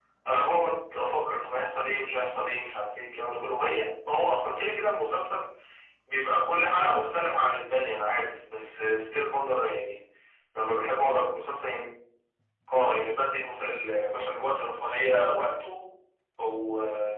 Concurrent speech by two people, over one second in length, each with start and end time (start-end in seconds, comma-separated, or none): none